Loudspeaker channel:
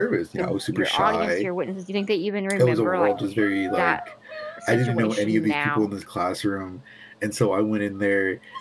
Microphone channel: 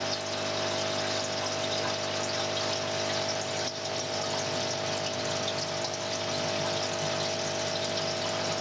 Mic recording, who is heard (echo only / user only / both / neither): neither